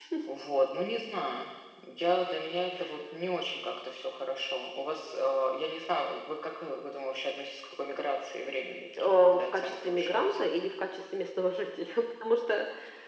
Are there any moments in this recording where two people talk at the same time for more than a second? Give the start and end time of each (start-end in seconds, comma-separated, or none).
9.0-10.5